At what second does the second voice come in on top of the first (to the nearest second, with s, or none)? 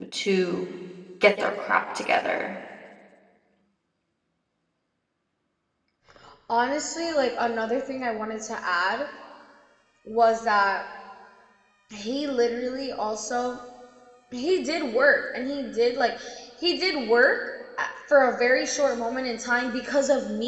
none